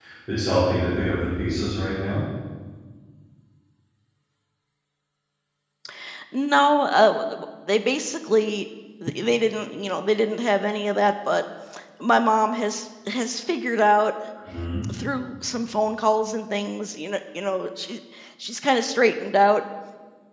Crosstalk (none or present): none